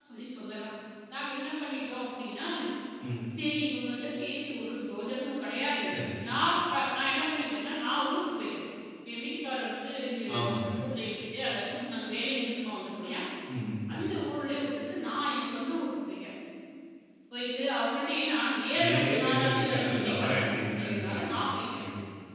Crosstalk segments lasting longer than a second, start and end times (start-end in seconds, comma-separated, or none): 18.8-21.8